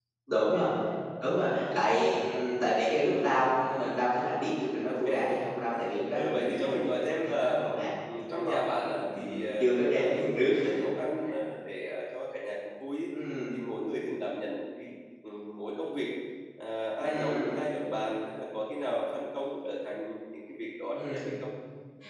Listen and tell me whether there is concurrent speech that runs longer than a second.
Yes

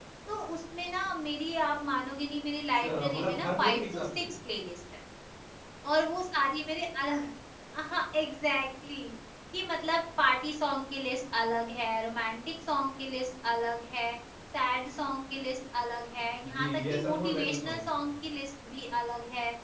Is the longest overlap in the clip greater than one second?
Yes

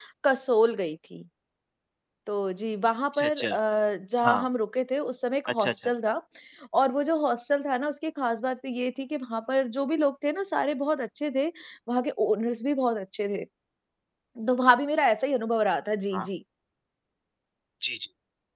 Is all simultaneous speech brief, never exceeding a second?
Yes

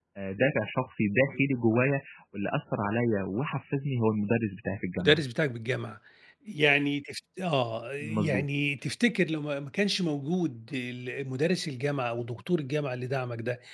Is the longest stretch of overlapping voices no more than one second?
Yes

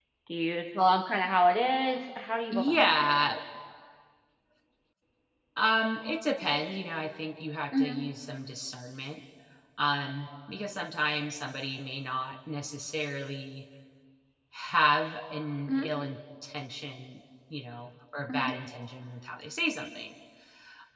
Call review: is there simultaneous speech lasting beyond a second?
No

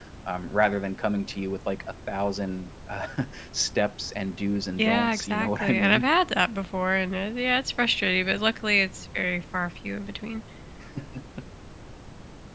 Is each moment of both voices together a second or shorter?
No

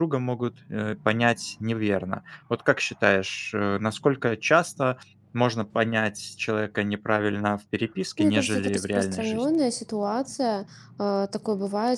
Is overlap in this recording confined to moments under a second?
No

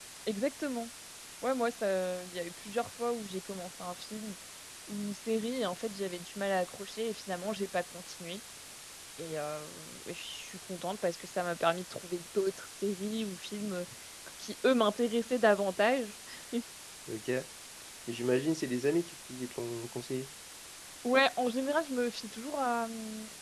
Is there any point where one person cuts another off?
No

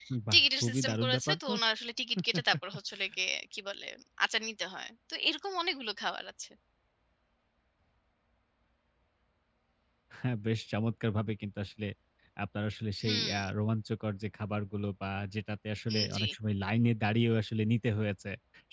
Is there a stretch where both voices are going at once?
Yes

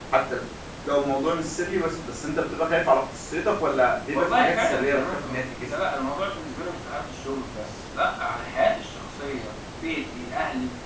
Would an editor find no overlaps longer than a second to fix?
No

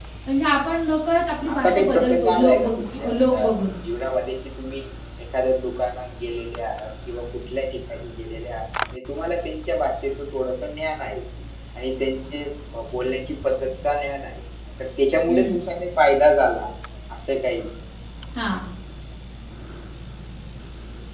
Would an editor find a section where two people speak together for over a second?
Yes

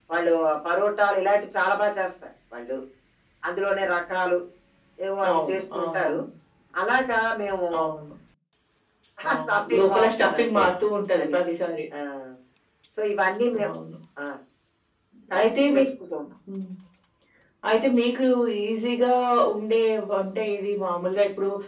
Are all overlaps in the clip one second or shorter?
No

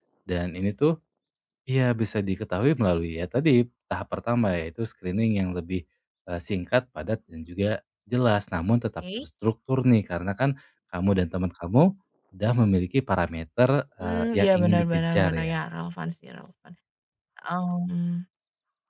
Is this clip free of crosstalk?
No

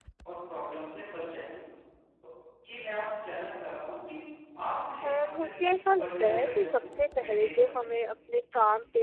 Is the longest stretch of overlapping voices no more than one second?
No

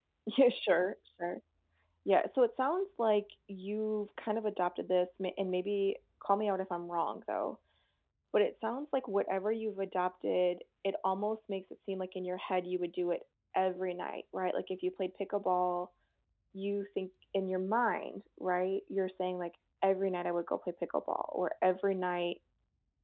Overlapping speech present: No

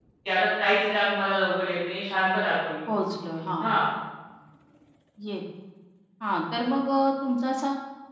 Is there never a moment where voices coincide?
Yes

